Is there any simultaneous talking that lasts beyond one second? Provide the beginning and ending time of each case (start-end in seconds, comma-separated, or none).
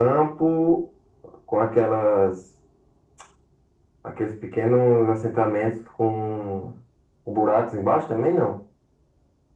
none